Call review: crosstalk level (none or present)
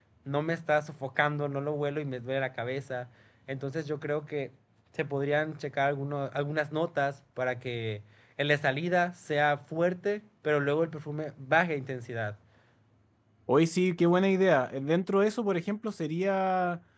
none